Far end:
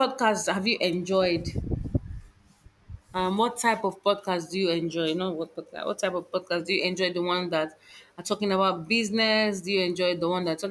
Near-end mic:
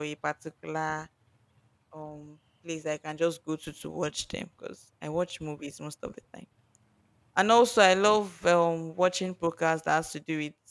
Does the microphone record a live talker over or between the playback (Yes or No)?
Yes